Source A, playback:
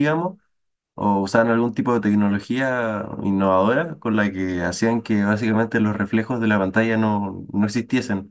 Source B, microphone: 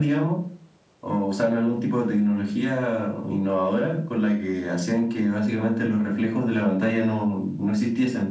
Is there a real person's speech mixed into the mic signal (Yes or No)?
No